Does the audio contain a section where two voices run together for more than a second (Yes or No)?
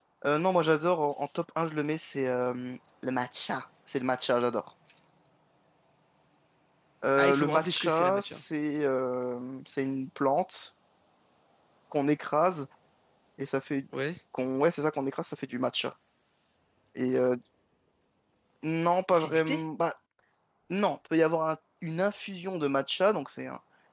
Yes